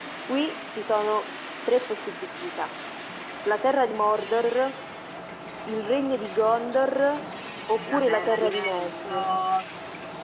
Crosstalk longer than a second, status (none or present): present